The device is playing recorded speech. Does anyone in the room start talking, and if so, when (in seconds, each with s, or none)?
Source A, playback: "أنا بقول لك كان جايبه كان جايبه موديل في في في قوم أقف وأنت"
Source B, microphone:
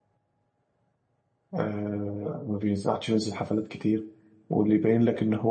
1.5 s